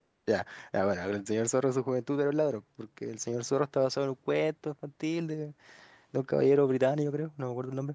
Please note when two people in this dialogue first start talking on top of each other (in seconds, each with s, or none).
none